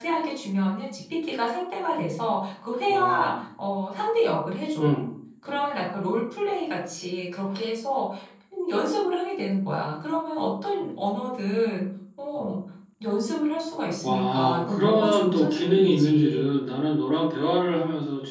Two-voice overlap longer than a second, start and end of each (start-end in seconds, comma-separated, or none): 14.0-16.5